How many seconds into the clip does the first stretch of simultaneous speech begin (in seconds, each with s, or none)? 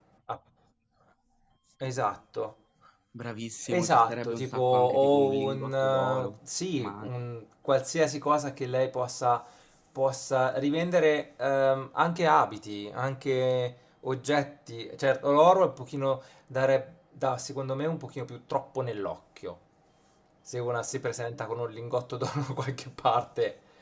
3.7 s